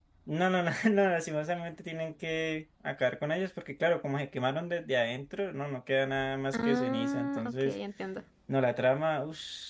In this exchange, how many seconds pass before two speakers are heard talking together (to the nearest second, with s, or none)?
7 s